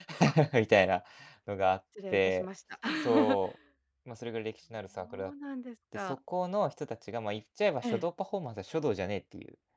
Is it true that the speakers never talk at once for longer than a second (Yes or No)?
Yes